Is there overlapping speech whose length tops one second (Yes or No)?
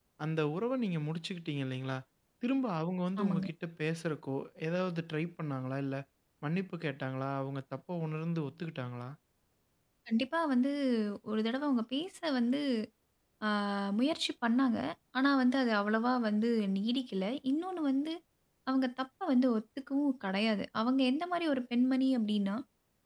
No